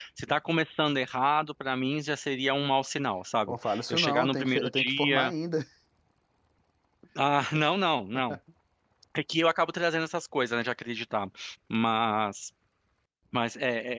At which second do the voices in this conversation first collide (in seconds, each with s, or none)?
3.5 s